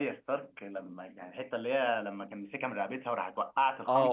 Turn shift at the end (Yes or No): Yes